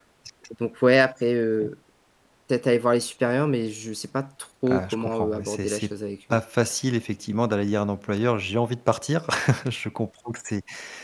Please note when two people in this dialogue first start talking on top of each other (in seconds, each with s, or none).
4.7 s